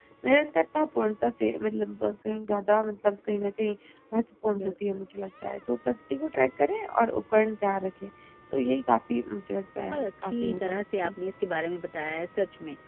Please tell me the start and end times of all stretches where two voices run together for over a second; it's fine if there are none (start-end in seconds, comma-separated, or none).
9.9-11.1